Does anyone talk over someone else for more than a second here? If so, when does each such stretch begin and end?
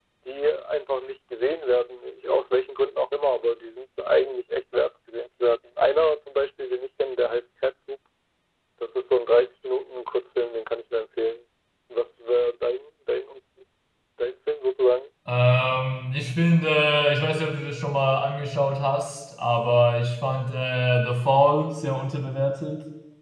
none

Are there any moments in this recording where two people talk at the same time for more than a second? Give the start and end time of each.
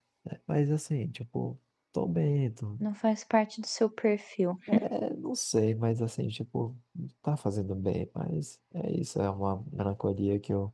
none

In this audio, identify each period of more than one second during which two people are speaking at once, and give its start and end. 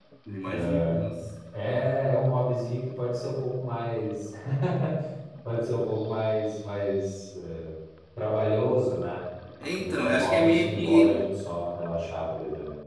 9.8-11.2

